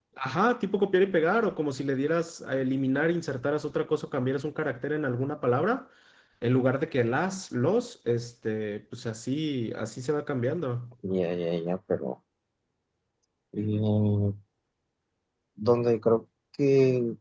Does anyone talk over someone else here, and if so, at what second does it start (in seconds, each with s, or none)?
none